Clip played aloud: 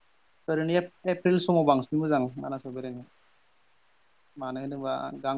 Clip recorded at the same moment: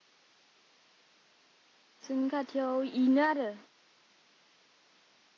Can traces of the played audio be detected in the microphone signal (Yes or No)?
No